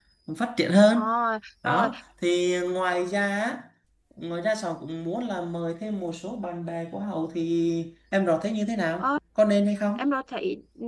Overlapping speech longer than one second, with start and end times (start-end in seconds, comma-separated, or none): none